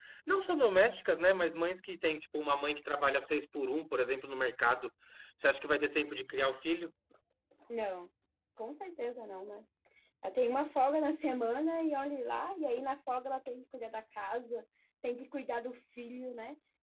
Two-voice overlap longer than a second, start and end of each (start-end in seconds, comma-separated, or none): none